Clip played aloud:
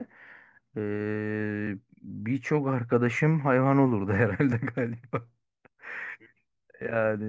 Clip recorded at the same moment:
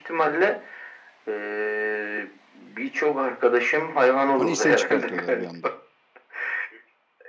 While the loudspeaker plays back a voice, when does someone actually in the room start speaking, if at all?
4.4 s

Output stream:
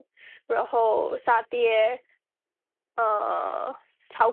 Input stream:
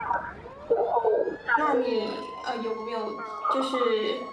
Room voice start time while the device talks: 1.5 s

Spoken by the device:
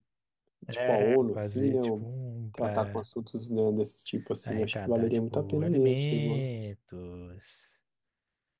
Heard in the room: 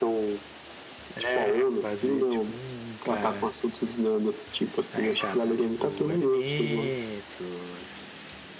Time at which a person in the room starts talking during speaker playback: none

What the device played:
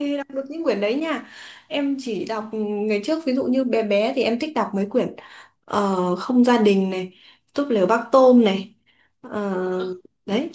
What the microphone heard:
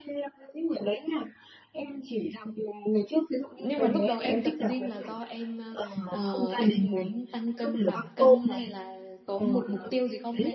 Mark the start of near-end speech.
3.5 s

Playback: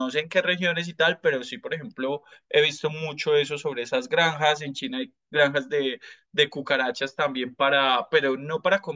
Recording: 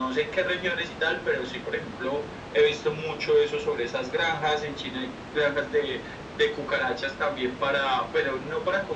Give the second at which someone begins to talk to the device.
none

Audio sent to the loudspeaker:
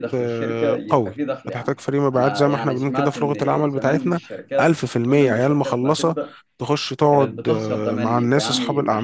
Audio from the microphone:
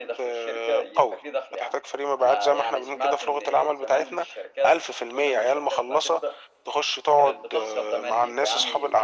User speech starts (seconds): none

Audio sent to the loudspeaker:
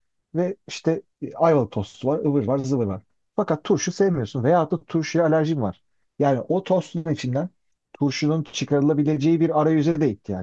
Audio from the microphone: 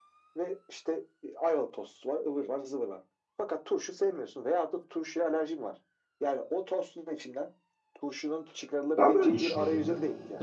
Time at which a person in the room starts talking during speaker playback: 8.9 s

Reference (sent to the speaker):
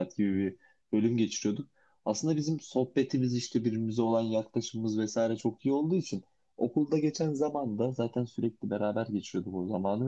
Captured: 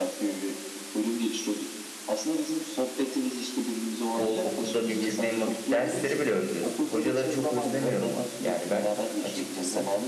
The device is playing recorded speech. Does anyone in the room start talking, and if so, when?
4.2 s

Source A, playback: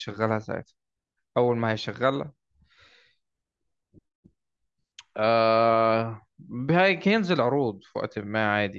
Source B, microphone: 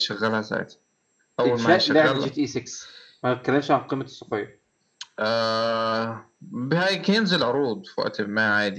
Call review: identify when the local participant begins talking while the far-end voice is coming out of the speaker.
1.4 s

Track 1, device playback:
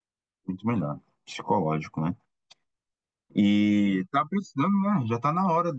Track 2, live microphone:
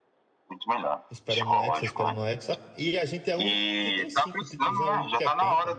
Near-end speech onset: 1.1 s

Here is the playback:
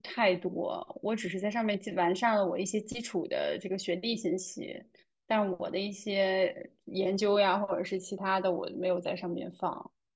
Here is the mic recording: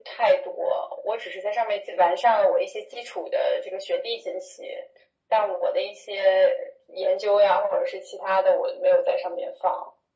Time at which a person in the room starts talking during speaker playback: none

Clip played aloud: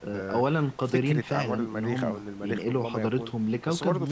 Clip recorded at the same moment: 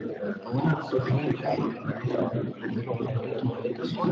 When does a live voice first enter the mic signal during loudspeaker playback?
0.7 s

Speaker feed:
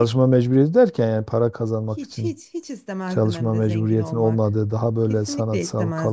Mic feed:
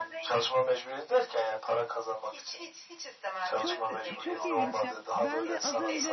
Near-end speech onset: 3.5 s

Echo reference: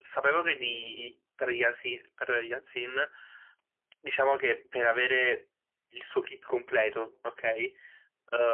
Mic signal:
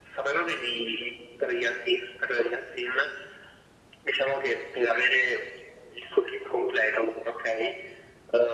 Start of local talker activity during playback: none

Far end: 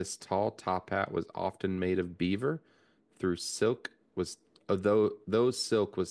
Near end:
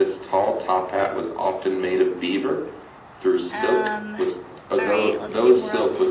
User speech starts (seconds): 3.5 s

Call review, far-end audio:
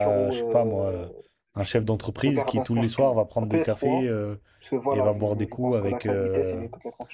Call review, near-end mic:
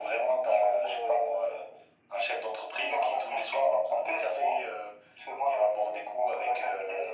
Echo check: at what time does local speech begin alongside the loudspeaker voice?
none

